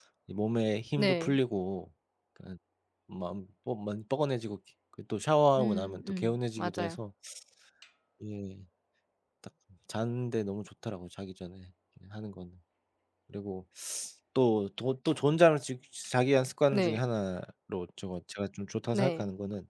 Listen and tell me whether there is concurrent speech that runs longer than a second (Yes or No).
Yes